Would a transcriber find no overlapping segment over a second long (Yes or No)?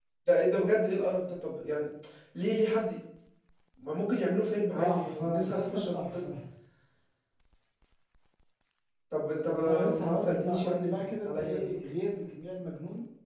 No